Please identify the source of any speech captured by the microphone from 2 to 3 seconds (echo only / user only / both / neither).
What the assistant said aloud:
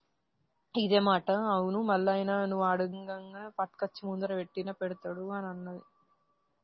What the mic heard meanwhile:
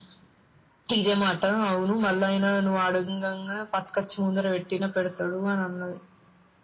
echo only